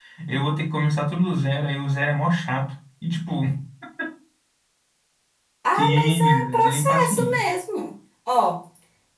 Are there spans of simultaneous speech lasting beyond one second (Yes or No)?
Yes